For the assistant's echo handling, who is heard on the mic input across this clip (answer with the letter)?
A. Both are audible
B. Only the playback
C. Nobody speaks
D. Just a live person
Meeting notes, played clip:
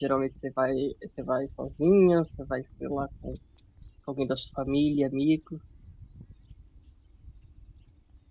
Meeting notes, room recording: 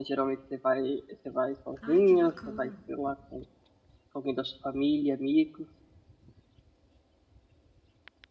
A